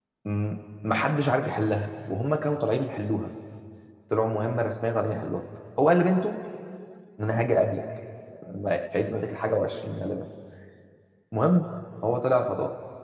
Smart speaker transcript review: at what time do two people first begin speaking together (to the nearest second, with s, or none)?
none